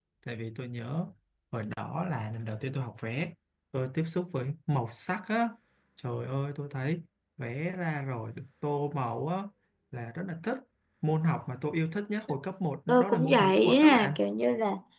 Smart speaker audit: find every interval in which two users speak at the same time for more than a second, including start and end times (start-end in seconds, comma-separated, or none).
12.9-14.1